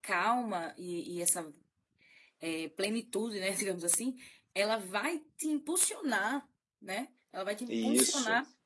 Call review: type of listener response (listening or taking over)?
listening